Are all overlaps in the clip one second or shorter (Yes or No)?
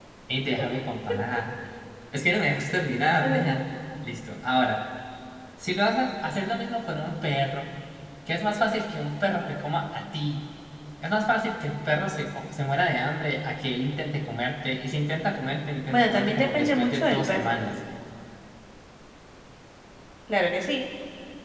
No